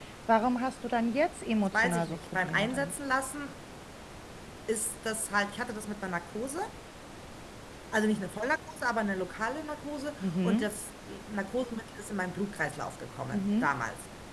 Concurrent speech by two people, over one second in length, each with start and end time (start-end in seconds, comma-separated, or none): 1.6-2.9